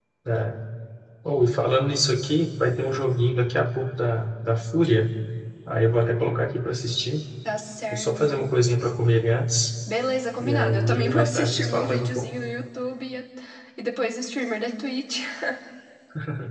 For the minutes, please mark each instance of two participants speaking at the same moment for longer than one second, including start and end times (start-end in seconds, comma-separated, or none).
10.4-12.3